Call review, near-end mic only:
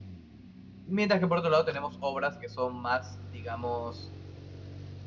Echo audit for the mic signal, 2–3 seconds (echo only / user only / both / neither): user only